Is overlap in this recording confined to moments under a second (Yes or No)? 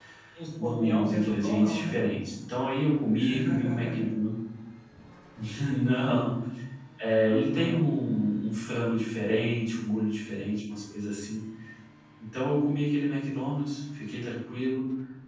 No